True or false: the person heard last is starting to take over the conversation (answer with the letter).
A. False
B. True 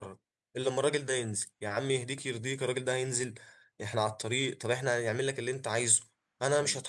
A